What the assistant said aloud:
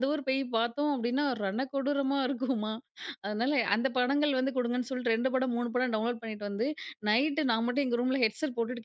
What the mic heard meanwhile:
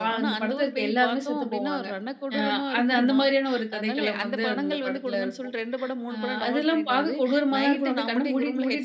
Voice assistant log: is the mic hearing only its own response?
No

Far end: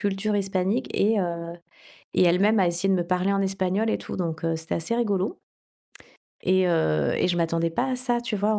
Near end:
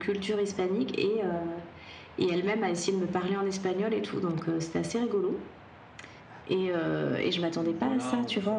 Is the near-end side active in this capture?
Yes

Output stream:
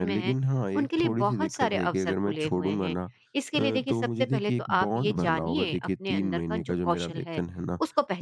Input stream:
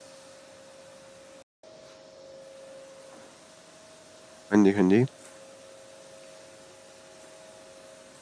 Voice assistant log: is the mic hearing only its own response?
No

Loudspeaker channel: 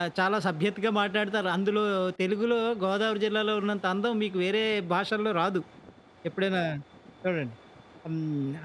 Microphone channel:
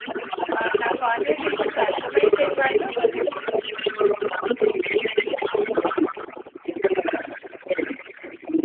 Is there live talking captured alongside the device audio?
Yes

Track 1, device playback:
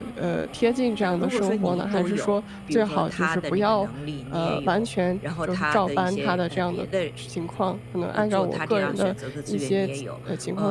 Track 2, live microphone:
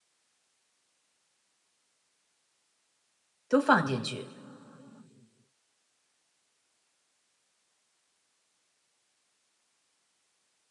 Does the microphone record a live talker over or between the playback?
Yes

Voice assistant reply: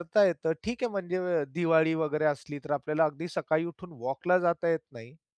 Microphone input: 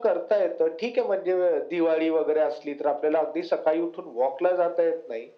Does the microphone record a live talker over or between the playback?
No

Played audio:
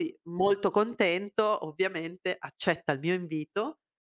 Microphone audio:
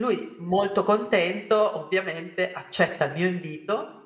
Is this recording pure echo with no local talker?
Yes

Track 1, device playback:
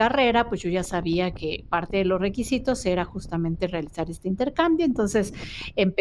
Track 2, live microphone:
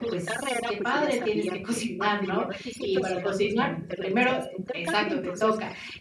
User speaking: Yes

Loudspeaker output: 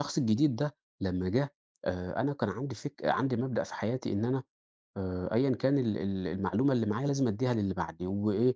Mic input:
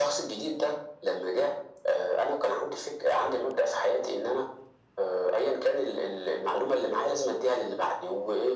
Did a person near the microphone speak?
No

